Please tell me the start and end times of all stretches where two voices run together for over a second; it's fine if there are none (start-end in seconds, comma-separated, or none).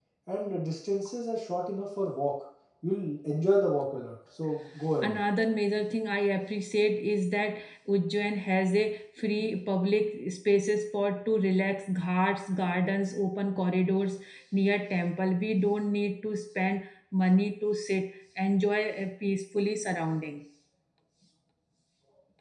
none